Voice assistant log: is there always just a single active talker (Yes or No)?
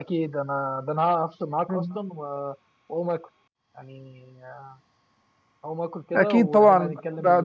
No